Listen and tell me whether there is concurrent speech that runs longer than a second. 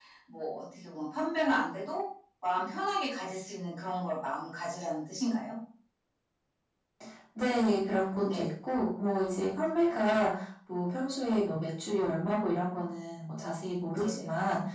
No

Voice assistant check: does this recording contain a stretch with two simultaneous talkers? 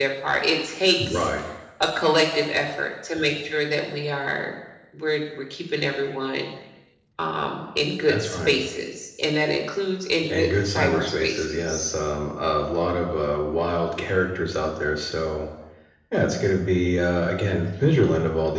Yes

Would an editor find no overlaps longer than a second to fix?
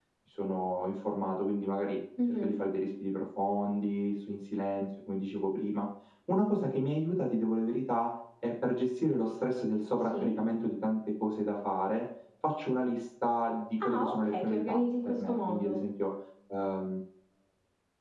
No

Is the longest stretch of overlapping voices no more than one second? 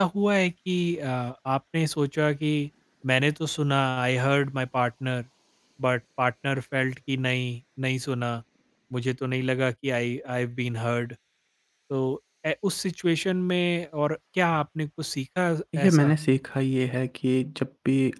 Yes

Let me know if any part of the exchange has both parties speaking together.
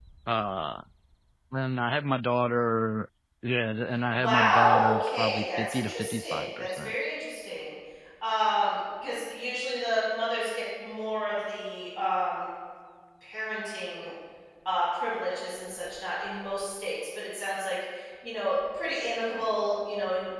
Yes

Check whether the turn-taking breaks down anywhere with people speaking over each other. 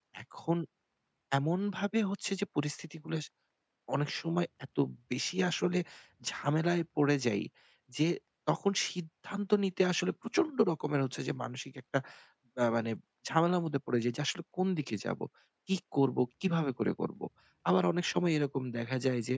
No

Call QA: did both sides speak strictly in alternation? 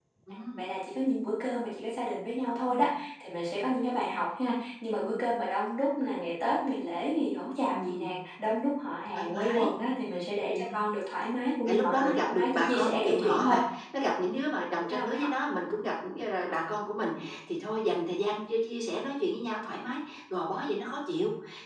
No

